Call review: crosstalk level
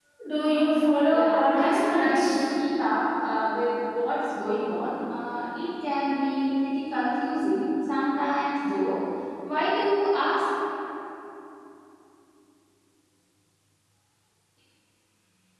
present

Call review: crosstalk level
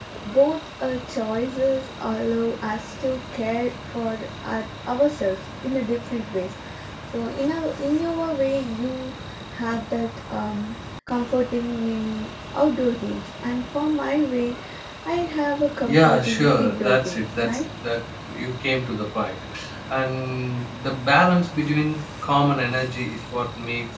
present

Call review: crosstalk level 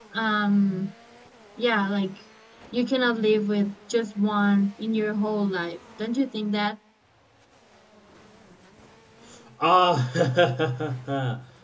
none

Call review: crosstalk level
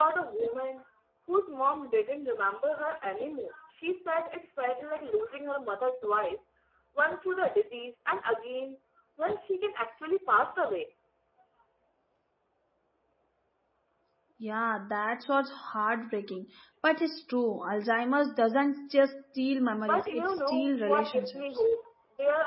present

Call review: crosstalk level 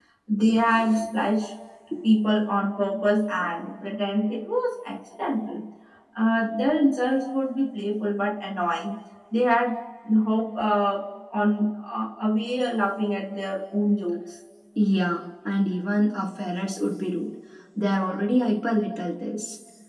none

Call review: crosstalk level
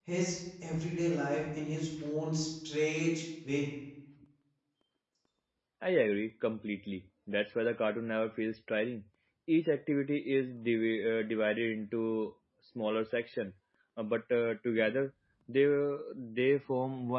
none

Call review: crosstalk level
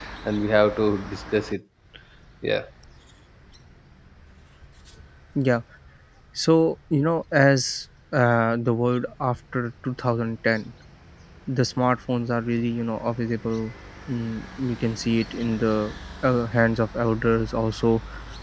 none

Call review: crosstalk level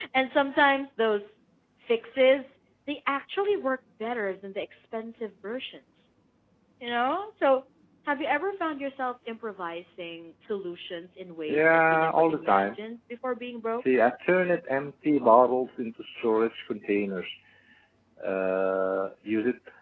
present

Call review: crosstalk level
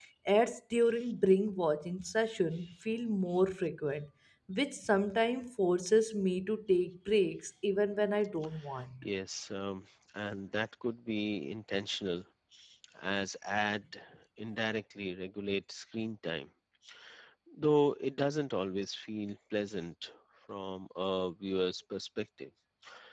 none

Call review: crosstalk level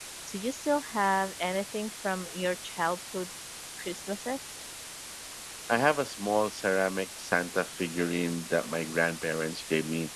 none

